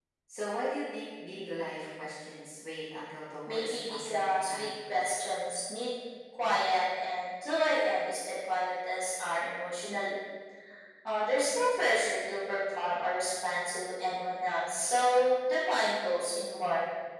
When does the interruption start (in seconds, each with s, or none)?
3.5 s